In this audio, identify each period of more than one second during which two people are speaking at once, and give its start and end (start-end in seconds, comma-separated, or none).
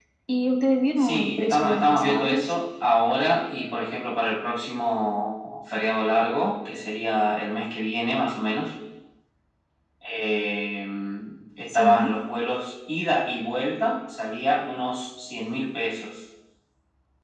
1.0-2.4